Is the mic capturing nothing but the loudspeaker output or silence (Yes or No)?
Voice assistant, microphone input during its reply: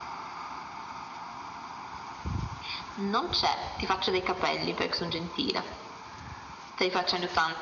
Yes